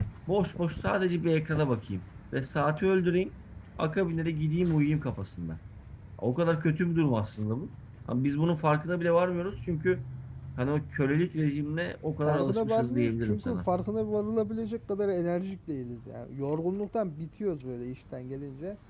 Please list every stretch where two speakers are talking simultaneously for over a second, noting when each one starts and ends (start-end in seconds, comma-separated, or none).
12.2-13.6